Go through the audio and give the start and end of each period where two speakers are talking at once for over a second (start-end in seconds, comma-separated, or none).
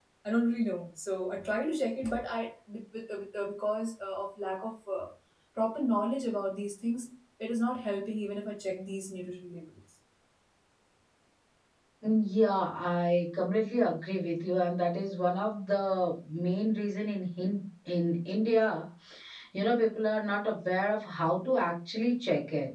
none